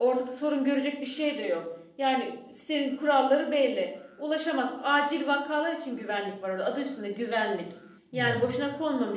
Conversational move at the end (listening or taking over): listening